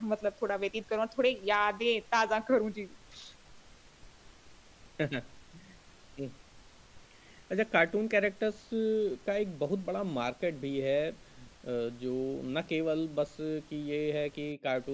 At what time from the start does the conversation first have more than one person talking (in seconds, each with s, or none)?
none